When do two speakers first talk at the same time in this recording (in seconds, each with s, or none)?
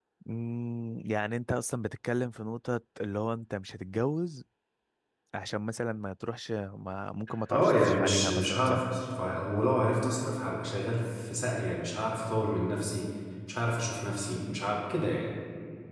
7.5 s